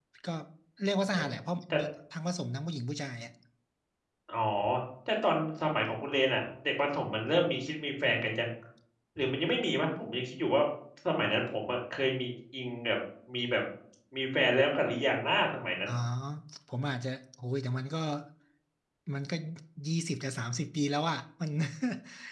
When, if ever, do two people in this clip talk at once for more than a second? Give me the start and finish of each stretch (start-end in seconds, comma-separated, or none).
none